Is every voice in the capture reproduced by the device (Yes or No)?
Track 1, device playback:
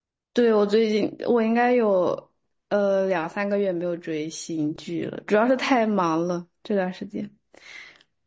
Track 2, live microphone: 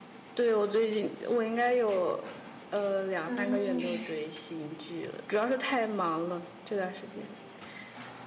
No